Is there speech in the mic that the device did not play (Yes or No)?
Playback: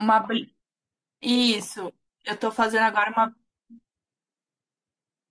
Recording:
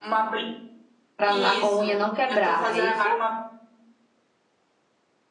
Yes